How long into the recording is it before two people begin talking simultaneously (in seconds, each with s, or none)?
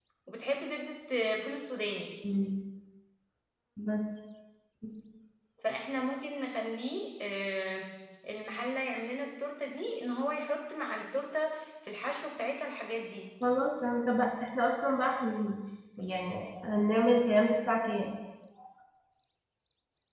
none